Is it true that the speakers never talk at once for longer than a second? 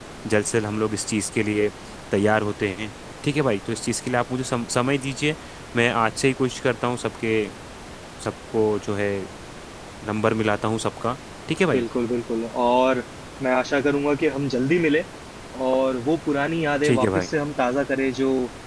Yes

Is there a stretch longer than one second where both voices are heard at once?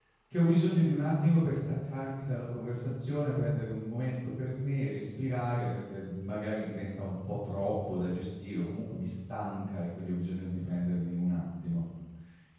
No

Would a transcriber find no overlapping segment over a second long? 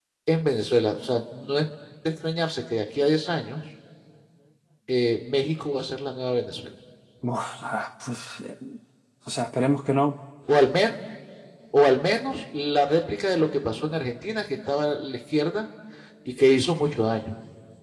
Yes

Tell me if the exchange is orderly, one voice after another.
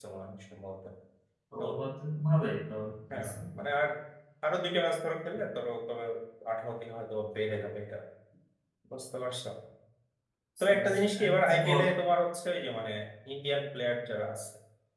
No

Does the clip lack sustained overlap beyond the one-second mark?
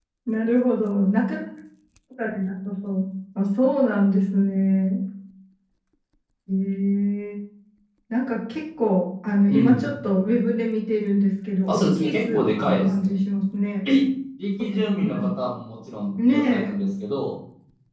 No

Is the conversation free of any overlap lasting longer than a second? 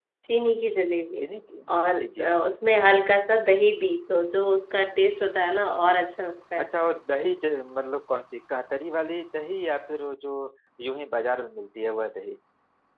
Yes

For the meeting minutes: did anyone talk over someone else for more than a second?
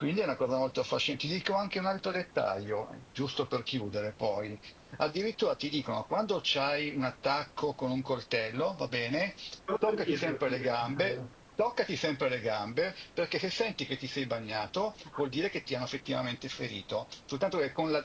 Yes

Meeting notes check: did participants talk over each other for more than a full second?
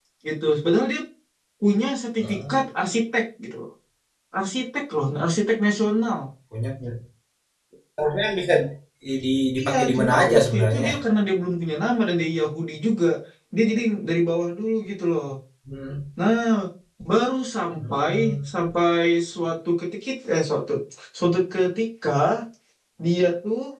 Yes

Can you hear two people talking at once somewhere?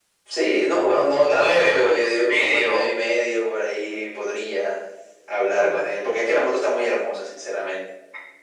Yes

